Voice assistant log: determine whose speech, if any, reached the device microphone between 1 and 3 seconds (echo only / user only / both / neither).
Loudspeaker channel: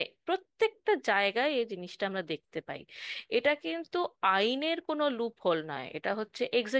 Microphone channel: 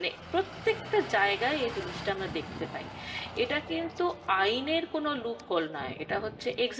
echo only